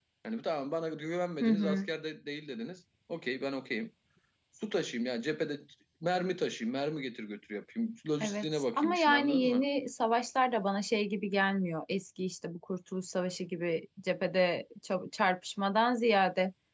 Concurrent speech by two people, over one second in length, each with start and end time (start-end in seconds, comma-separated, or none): 8.2-9.7